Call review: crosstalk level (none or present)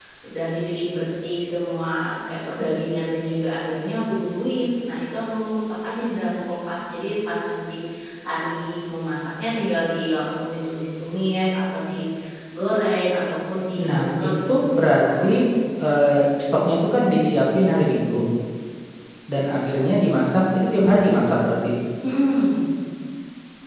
present